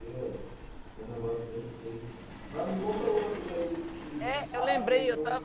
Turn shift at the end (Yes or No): Yes